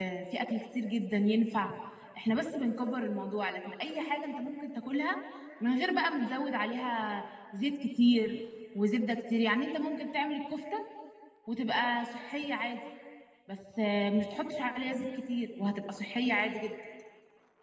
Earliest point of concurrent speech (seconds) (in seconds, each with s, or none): none